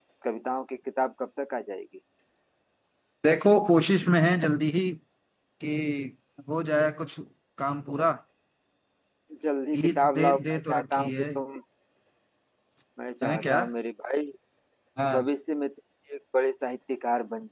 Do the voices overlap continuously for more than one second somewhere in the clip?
Yes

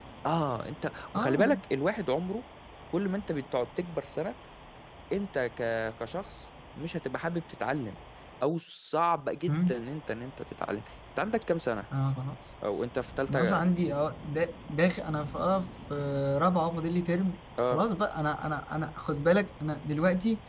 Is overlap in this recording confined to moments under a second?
Yes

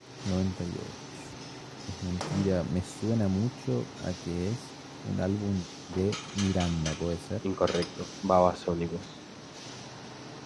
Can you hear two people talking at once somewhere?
No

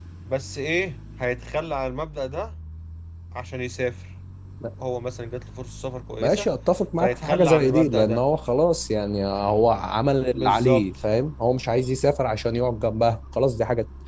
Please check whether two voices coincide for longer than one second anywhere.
Yes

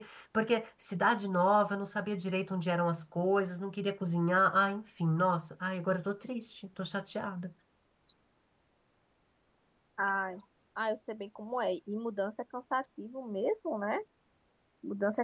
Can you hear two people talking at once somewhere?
No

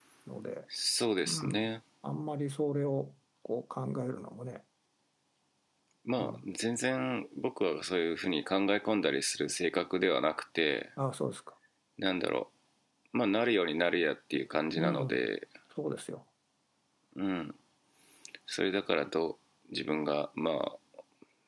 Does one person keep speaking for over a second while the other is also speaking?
No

